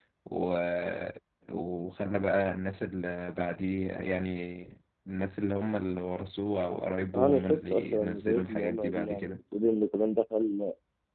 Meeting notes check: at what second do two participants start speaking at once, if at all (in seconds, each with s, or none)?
7.1 s